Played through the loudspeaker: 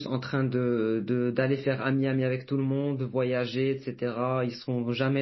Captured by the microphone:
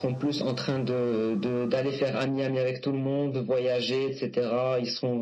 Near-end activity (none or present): none